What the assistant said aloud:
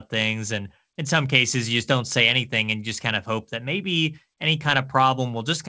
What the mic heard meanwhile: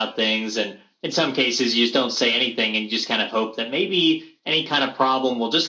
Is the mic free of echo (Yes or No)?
No